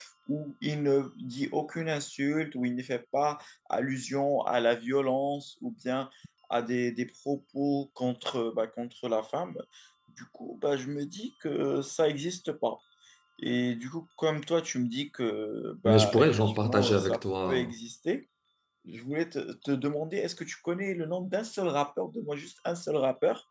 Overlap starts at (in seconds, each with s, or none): 15.8 s